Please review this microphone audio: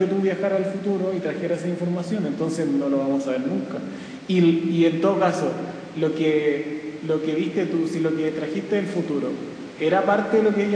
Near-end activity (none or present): none